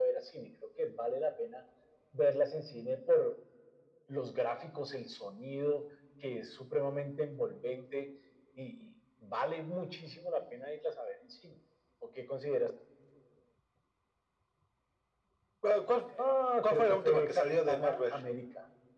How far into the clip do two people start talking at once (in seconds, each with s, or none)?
16.6 s